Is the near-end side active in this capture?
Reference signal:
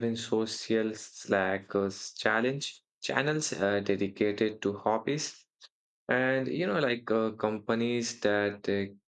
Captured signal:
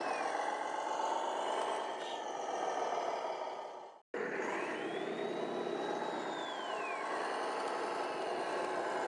No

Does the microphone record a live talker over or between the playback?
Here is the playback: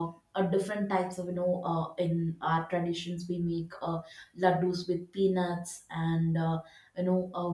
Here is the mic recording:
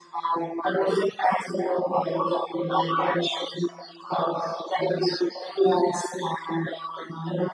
No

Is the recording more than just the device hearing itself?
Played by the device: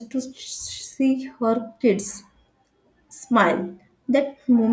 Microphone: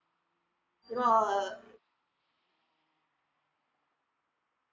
Yes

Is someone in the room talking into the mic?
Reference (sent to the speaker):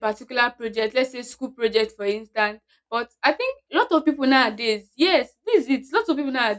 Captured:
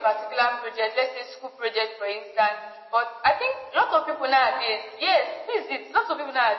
No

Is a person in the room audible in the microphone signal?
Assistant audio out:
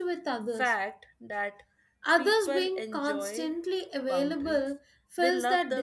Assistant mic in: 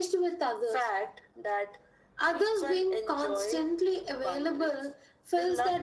No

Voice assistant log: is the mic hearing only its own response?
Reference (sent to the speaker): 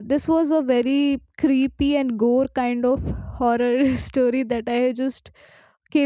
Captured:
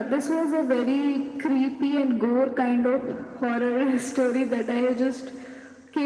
Yes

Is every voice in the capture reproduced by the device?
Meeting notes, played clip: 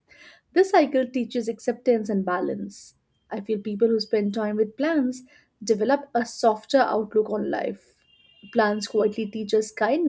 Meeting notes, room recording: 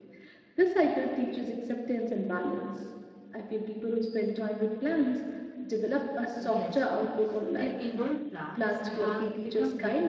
No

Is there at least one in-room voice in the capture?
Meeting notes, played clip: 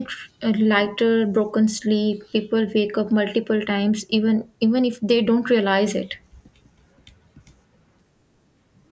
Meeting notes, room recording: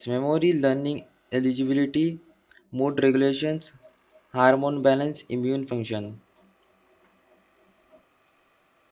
Yes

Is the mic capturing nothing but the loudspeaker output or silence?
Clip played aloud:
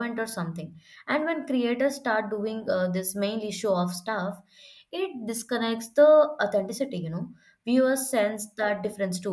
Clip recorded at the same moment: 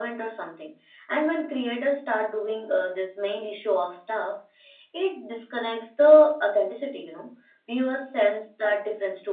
Yes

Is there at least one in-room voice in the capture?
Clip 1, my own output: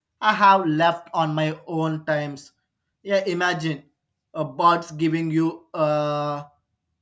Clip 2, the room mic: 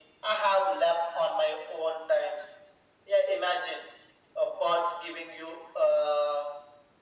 No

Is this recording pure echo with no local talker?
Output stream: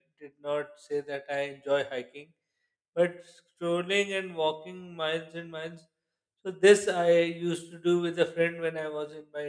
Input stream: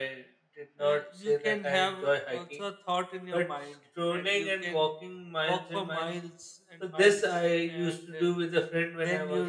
No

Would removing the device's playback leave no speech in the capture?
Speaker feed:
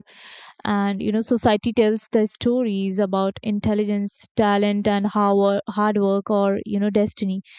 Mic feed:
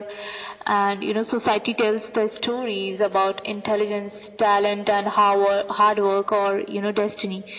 Yes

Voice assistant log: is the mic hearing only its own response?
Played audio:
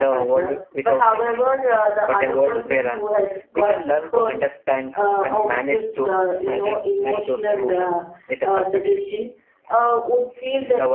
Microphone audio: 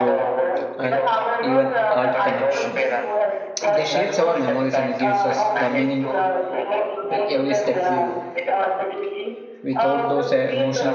No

